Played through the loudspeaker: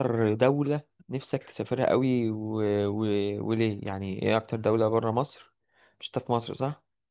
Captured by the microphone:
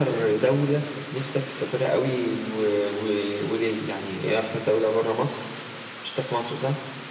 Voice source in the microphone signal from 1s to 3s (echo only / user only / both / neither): echo only